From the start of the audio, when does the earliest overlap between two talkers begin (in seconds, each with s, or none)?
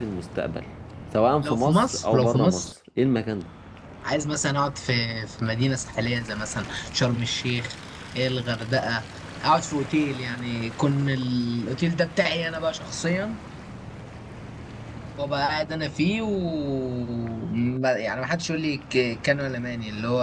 1.4 s